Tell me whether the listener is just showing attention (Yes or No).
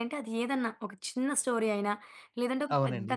Yes